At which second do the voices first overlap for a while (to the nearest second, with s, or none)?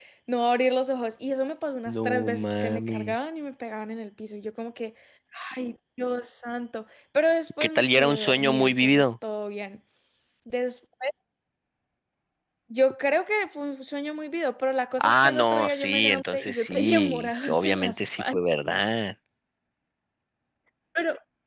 2 s